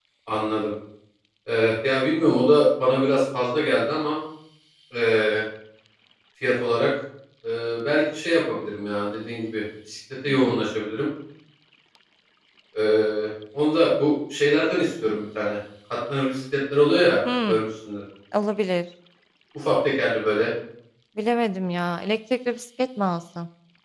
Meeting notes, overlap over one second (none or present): none